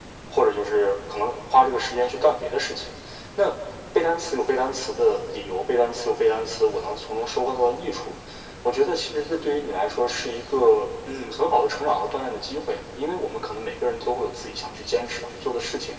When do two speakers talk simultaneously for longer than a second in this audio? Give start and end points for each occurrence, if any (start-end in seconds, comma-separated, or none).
none